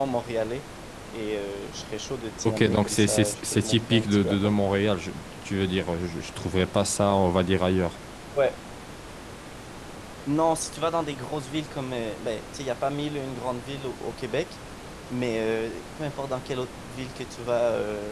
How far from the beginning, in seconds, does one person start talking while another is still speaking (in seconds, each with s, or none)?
2.4 s